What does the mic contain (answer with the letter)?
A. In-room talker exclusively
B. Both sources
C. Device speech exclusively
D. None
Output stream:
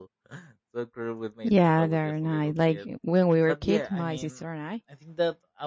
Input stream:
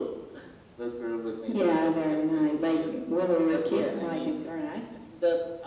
C